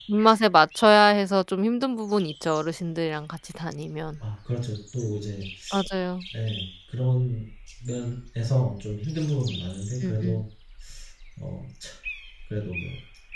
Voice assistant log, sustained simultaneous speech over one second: none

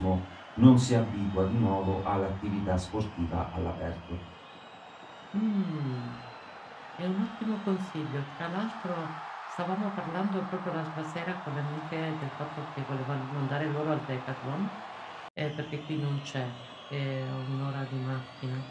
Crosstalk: none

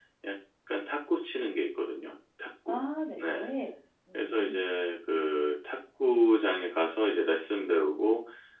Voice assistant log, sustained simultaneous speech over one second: none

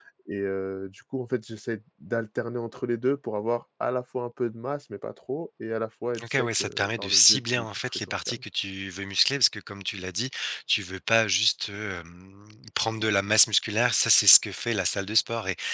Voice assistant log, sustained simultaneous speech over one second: present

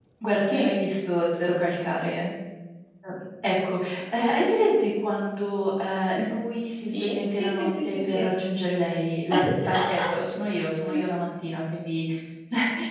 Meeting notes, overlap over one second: present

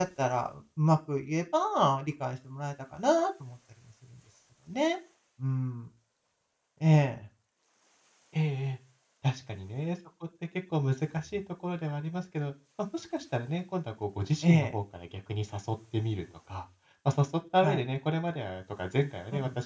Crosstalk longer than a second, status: none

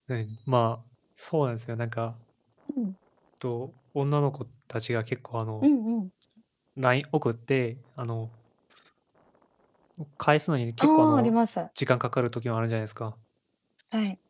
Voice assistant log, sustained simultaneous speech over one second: none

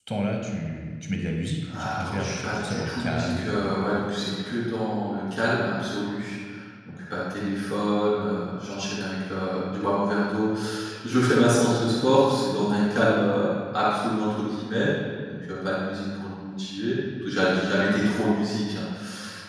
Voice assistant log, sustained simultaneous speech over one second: present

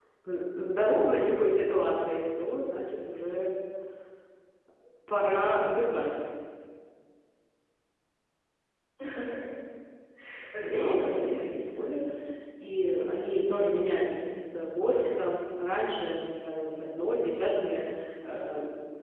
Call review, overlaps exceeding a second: present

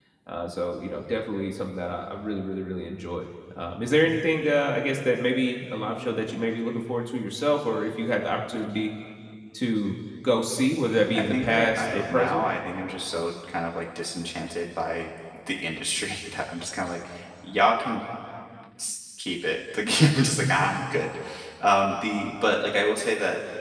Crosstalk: present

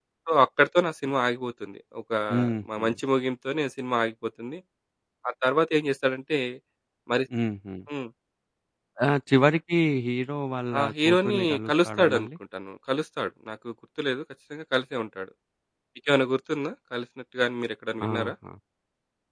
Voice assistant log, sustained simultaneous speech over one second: present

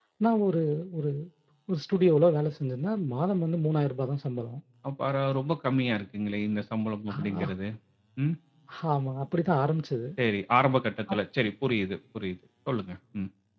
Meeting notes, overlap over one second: none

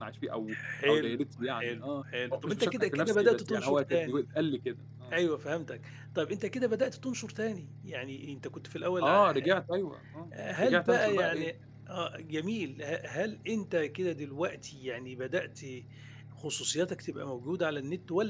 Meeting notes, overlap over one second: present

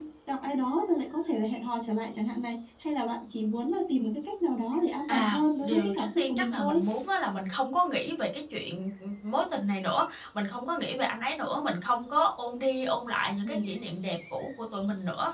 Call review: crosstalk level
present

